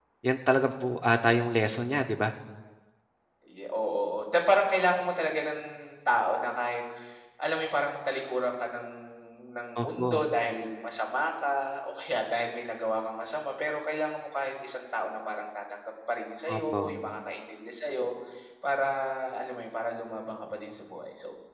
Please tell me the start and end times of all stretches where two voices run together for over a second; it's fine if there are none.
none

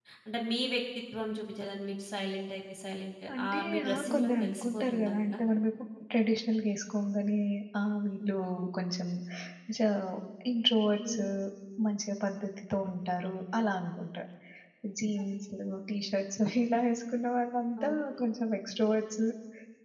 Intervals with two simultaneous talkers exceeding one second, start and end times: 3.4-5.4

